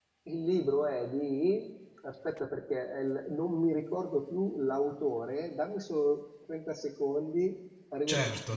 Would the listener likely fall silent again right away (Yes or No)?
No